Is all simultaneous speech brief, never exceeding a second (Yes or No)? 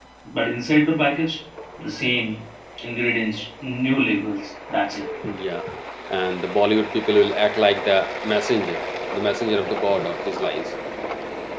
Yes